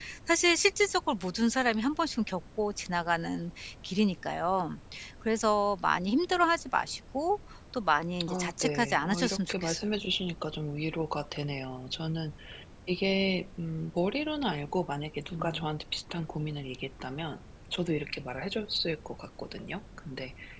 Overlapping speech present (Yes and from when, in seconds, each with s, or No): Yes, from 8.3 s